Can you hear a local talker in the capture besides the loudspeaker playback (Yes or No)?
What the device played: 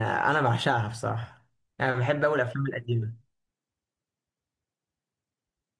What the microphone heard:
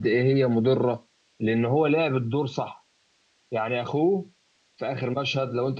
Yes